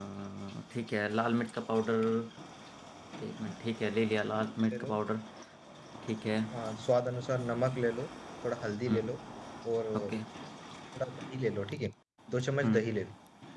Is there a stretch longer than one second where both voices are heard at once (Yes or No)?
No